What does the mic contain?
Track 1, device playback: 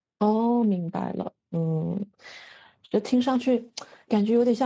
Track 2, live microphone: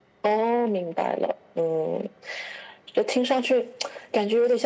echo only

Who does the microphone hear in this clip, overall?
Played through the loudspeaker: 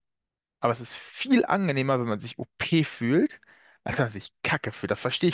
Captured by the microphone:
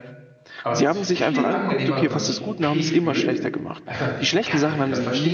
both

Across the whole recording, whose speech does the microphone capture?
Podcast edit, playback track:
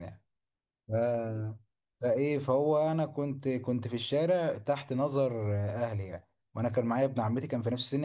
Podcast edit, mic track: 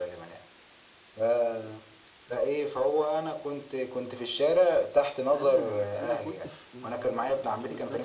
both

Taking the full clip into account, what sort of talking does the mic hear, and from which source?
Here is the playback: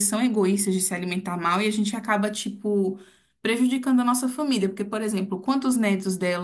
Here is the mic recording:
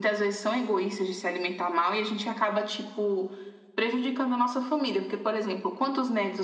echo only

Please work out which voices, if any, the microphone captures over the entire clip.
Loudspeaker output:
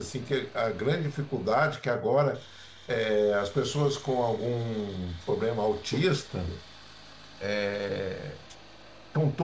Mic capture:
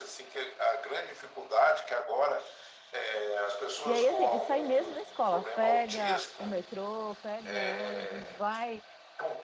both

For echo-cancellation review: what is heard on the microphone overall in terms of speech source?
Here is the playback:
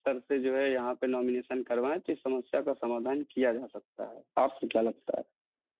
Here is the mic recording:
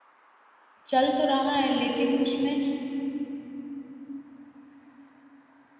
user only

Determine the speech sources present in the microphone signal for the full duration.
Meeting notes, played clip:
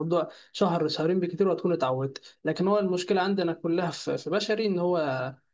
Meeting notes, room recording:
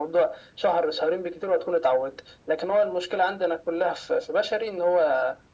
echo only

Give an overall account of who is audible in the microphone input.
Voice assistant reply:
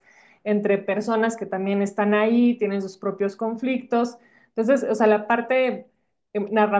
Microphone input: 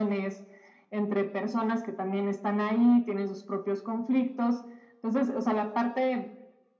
echo only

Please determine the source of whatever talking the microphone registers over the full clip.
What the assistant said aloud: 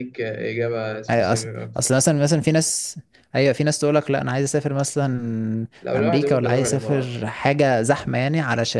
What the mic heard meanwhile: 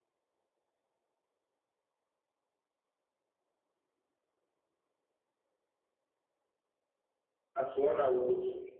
user only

